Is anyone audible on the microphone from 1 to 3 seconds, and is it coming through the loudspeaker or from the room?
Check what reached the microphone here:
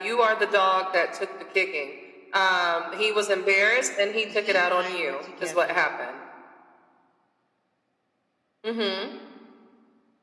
echo only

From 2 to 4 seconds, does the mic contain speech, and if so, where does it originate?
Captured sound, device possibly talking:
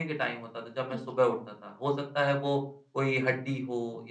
echo only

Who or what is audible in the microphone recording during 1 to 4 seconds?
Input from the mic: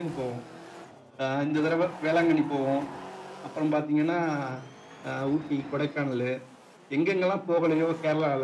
echo only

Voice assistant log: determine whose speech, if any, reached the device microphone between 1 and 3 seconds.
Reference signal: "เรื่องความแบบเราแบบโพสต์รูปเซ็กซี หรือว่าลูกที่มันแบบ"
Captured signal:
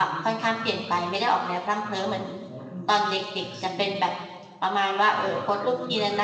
both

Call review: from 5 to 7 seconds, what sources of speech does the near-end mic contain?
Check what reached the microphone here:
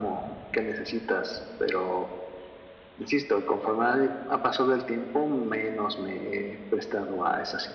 echo only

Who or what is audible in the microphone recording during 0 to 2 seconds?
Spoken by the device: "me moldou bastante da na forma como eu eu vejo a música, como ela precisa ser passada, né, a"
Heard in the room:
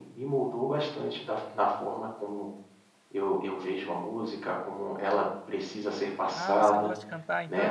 echo only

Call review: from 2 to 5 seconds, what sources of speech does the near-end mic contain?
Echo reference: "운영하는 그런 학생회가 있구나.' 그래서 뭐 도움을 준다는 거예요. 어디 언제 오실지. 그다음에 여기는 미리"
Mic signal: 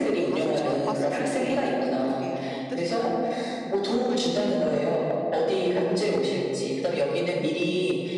both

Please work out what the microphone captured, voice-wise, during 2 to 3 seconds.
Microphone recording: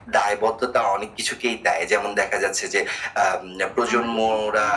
echo only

